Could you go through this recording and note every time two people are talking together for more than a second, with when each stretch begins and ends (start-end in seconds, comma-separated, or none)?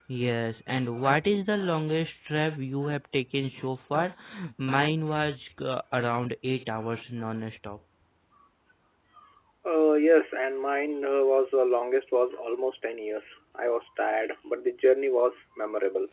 none